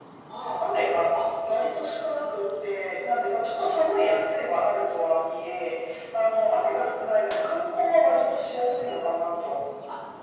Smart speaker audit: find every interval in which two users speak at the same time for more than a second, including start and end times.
none

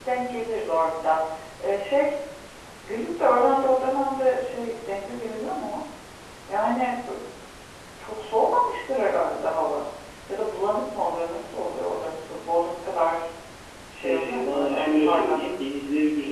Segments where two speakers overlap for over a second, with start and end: 14.0-15.4

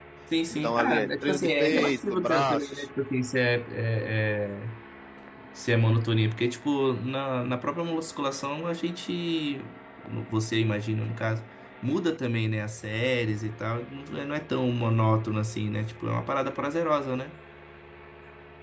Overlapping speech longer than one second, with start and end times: 0.6-2.8

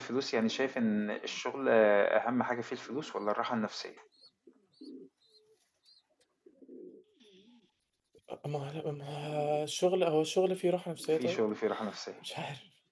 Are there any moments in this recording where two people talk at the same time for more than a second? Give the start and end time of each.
none

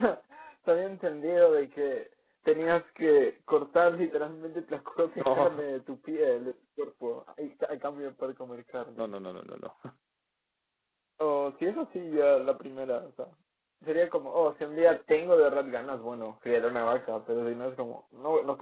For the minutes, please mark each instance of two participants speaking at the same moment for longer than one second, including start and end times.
none

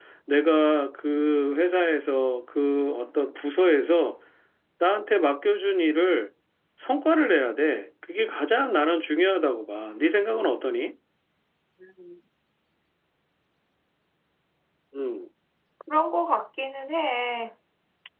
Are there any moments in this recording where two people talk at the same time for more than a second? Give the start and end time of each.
none

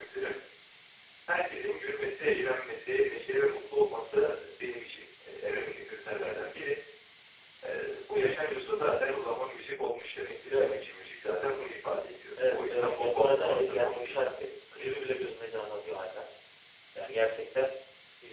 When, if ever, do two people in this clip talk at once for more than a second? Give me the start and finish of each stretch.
12.5-14.1

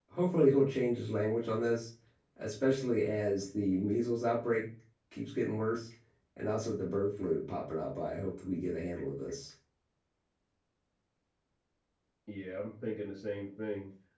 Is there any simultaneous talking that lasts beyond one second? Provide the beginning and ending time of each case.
none

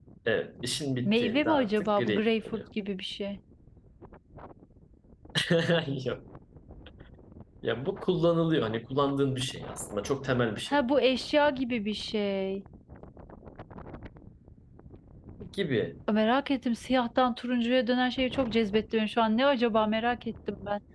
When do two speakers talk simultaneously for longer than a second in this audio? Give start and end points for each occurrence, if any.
1.0-2.6

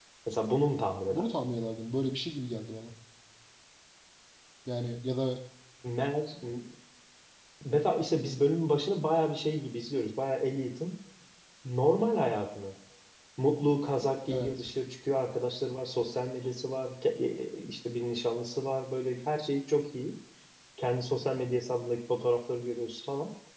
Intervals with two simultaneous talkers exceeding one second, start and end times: none

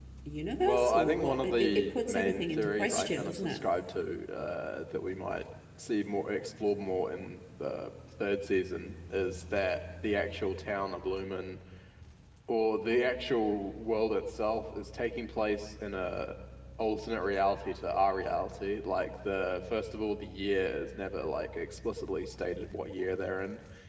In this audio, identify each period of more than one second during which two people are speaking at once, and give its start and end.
0.6-3.6

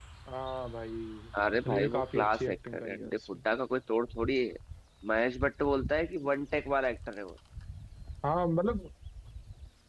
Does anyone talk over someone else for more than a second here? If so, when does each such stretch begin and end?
1.6-3.4

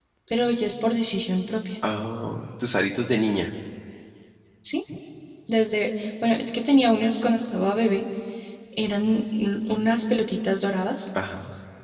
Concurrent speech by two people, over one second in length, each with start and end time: none

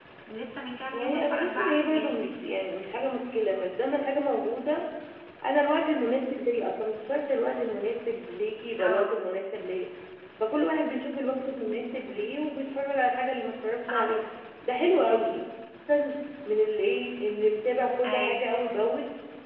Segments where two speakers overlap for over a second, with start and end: 0.9-2.3

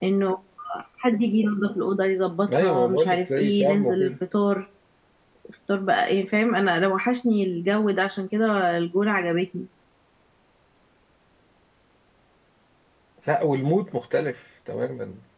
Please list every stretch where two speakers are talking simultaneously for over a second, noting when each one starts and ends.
2.5-4.1

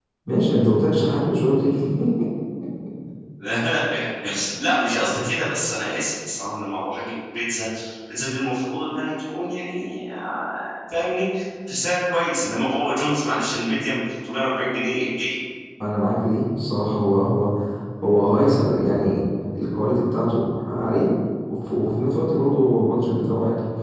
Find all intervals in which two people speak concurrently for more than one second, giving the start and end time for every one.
none

